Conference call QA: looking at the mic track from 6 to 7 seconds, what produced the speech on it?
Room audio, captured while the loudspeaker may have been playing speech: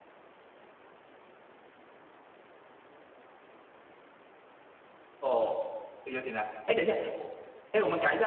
user only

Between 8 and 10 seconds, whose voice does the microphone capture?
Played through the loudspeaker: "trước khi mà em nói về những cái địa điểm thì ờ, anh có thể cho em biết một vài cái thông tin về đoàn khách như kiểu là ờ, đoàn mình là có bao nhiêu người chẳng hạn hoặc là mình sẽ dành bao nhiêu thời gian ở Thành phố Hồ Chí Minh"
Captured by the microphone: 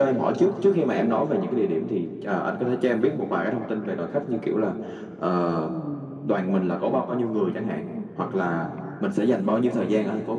both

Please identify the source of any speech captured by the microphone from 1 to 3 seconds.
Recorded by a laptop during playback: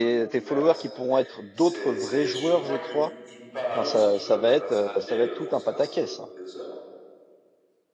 both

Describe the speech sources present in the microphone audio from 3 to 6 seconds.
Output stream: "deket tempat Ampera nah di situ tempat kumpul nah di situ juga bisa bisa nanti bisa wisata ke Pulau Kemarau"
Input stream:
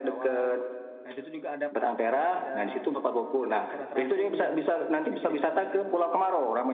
both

